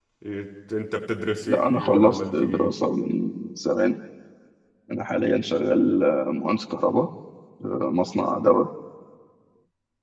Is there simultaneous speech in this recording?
Yes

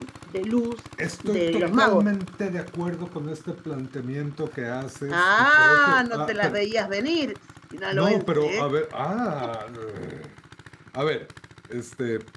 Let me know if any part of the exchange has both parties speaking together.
Yes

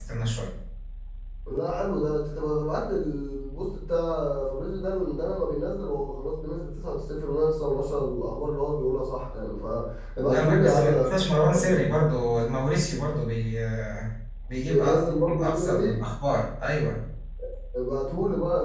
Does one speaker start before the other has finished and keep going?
Yes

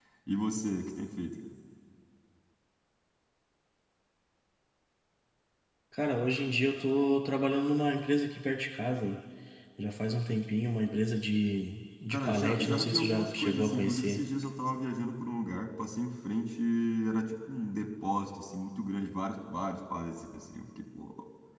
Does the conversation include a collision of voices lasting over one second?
Yes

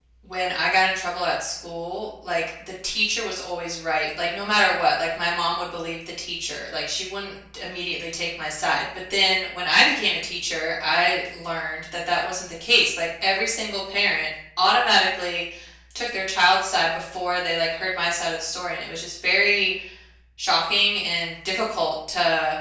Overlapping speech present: No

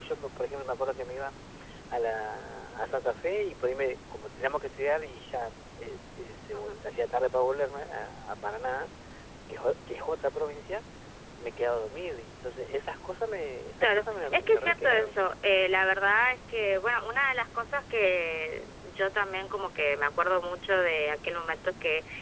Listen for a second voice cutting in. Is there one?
Yes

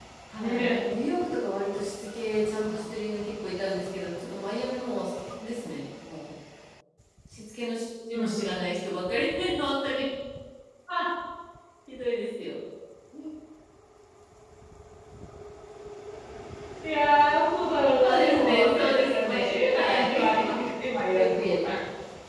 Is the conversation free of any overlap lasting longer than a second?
No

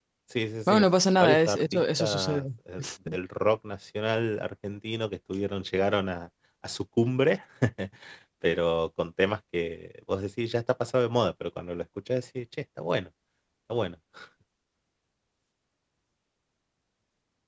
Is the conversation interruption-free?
No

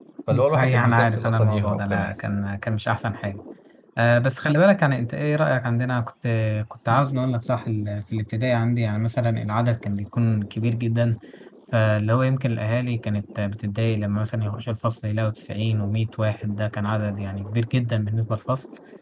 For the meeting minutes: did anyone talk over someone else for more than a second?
Yes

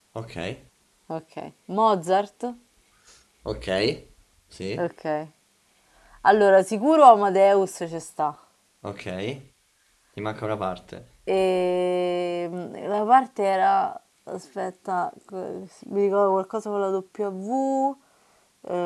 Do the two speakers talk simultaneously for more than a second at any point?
No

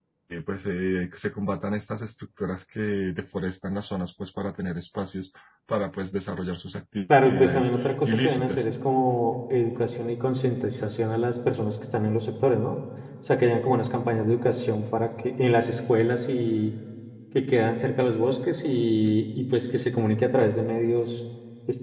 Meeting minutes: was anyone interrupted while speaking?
Yes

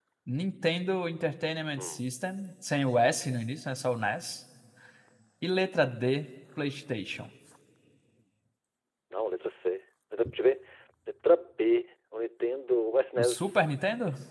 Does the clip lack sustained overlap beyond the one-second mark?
Yes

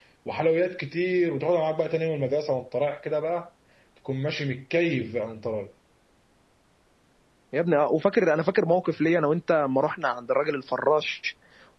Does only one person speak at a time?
Yes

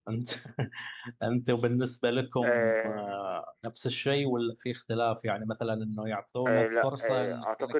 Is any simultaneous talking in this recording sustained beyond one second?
Yes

